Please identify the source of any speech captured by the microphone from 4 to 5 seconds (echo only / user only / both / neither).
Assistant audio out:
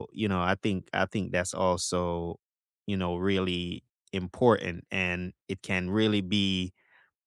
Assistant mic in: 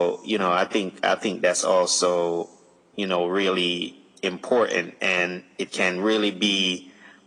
echo only